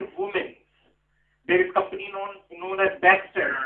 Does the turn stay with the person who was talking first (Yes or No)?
Yes